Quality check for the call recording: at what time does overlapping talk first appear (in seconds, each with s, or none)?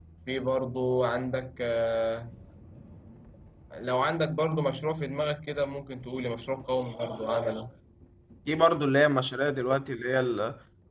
none